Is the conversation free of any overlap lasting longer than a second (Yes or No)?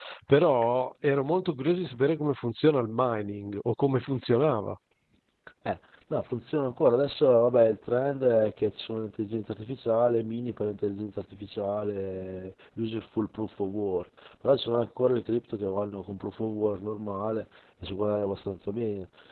Yes